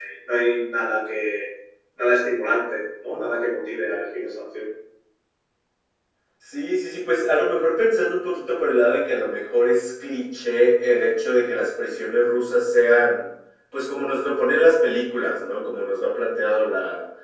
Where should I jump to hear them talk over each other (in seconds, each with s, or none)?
none